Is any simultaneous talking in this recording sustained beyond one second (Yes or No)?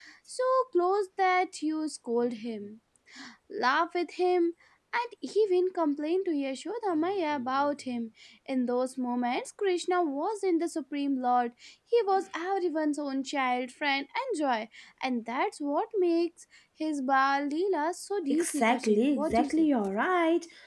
Yes